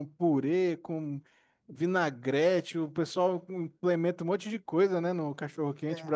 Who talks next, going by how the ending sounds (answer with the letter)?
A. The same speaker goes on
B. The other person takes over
B